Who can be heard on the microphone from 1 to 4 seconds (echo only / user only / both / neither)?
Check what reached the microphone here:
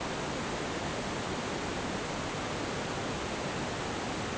neither